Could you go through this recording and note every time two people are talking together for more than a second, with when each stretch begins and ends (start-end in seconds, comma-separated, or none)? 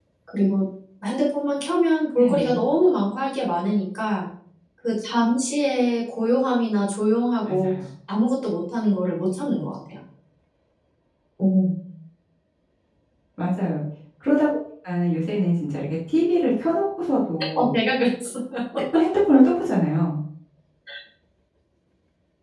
none